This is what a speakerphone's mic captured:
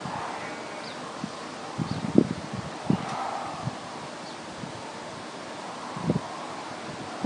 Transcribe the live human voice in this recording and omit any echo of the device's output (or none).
none